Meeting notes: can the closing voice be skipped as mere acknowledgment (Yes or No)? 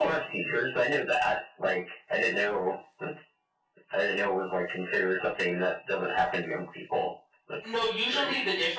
No